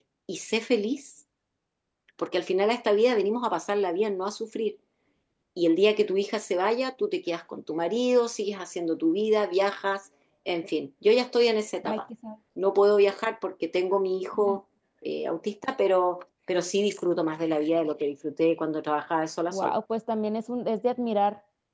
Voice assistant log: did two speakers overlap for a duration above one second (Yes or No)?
No